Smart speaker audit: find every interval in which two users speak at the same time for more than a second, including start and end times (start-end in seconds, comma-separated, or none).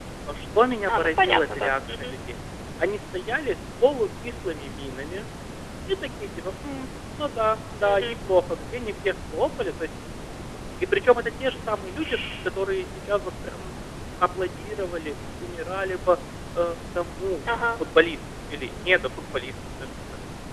0.9-2.1